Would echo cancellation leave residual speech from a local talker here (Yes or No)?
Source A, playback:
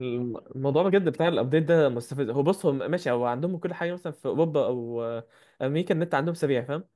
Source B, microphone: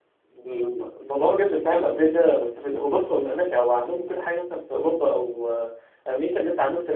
No